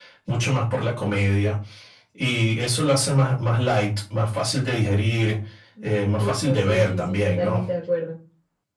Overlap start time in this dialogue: 6.2 s

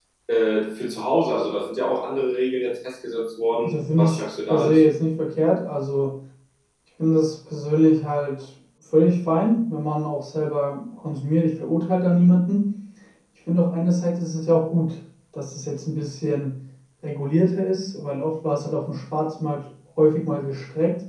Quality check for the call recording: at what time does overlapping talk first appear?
3.6 s

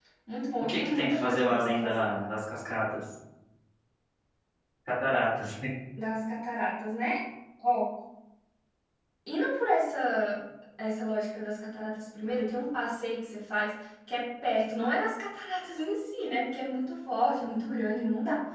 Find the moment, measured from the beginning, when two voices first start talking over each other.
0.6 s

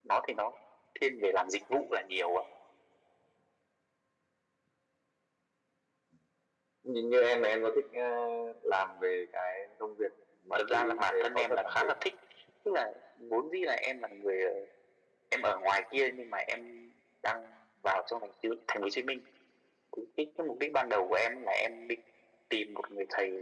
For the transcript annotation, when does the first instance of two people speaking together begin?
10.6 s

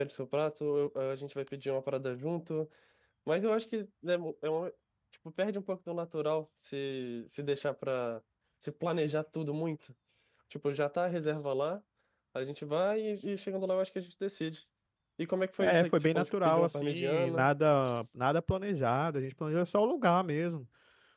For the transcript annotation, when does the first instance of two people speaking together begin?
15.6 s

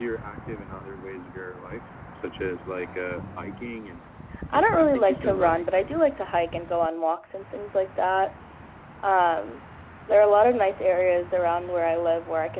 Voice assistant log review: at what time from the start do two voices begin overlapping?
4.5 s

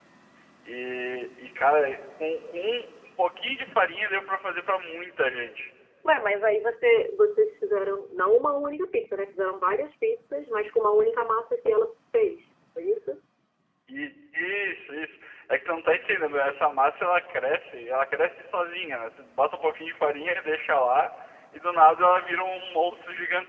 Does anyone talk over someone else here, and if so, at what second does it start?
none

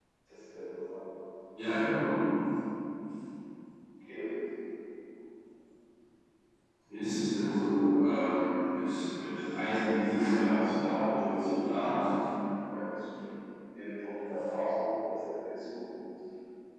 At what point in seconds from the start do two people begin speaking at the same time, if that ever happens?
10.7 s

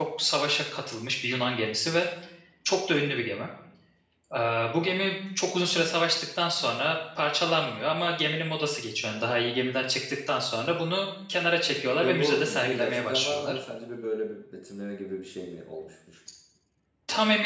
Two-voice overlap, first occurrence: 12.0 s

